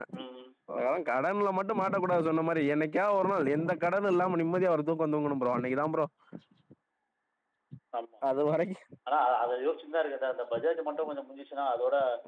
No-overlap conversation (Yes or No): Yes